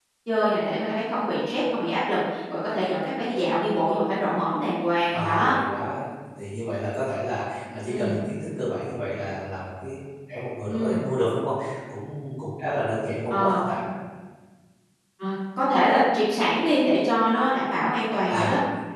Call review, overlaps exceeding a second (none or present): none